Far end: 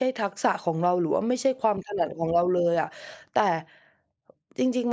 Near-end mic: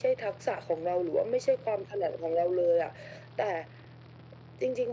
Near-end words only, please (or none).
none